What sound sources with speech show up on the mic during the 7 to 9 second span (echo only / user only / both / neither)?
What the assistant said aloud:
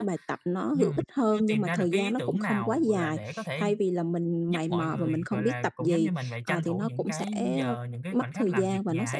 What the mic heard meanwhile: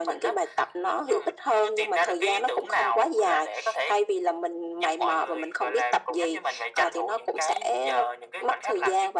echo only